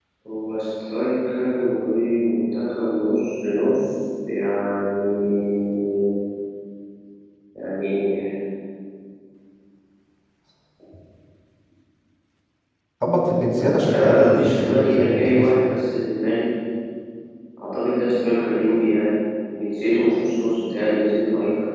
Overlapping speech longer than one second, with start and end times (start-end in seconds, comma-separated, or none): 13.6-15.4